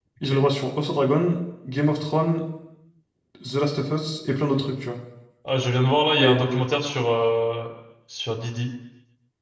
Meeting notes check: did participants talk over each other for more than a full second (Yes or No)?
No